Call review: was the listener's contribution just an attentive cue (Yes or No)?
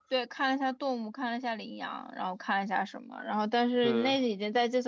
Yes